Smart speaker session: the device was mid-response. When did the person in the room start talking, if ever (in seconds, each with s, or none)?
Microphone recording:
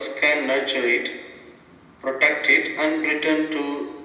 none